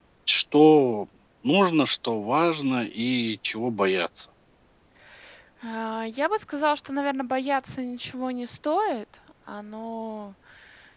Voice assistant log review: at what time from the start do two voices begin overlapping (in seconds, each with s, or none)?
none